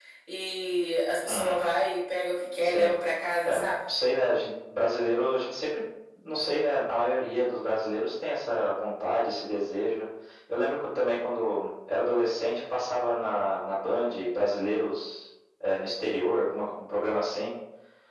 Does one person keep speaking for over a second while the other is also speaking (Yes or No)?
No